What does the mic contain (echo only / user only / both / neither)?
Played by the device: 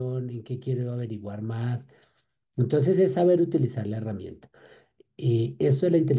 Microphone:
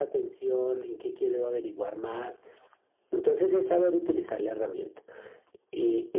echo only